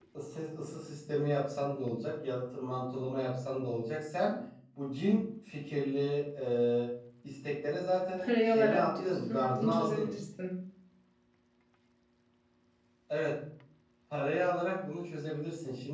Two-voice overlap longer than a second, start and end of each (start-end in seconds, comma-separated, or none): 8.2-10.1